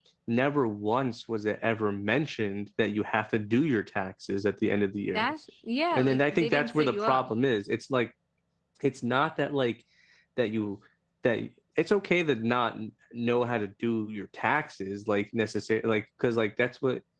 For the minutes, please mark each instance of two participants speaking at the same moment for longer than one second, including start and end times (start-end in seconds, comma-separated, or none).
5.9-7.3